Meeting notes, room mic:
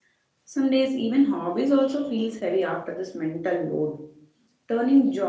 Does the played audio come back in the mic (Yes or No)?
No